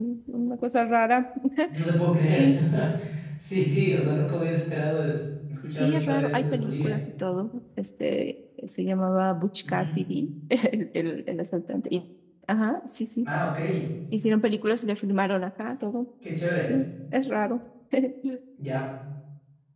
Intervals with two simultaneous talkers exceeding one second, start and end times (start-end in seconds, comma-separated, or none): 5.6-7.0